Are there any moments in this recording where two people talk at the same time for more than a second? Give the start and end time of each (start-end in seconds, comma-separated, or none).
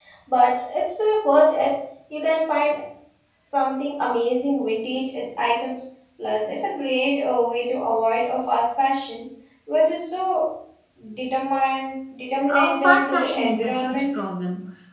12.5-14.0